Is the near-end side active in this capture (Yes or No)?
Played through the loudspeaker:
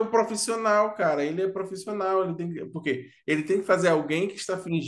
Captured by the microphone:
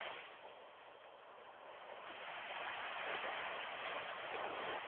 No